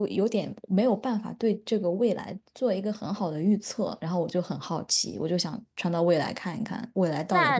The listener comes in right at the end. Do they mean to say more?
Yes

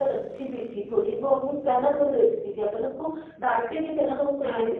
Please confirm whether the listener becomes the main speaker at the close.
No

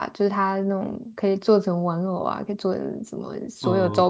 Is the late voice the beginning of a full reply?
Yes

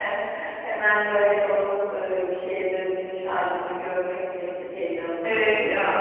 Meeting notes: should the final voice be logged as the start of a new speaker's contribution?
Yes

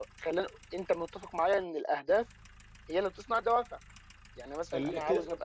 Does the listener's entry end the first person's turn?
Yes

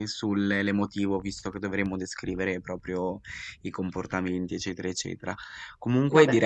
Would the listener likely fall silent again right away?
Yes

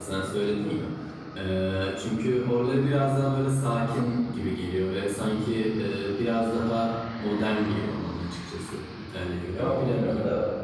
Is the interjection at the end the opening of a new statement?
Yes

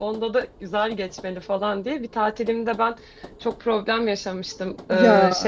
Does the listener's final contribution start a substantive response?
No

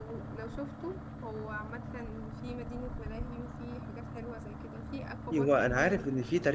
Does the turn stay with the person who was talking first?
No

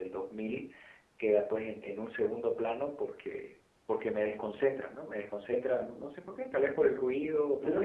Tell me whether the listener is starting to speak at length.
Yes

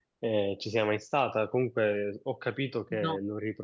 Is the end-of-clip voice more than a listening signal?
No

